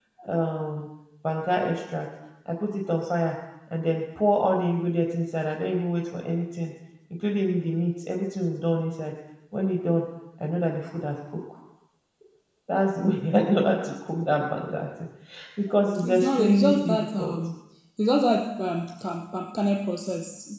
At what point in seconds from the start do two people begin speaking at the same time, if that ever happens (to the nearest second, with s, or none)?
16 s